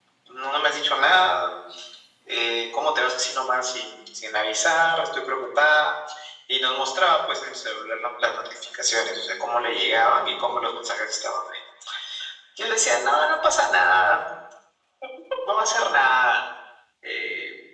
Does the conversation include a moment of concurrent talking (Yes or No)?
No